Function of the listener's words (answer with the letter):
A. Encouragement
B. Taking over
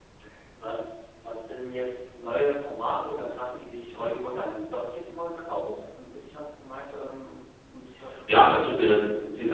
B